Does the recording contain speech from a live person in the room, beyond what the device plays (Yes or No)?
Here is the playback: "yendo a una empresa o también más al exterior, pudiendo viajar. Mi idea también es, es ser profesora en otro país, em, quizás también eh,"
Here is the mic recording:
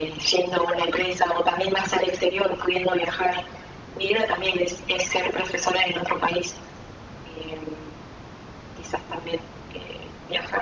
No